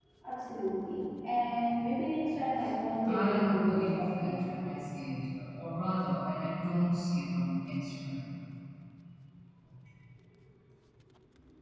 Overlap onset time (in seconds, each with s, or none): 3.0 s